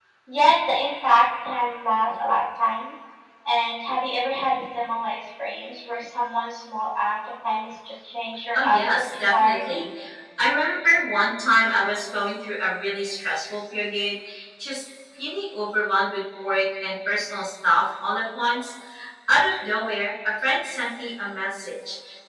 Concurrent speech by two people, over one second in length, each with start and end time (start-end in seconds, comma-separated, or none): 8.5-9.8